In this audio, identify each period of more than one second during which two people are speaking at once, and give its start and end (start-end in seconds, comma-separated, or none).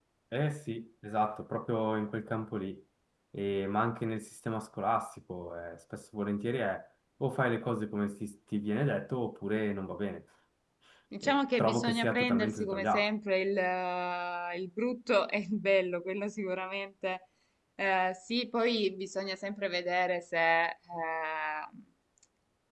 11.2-13.1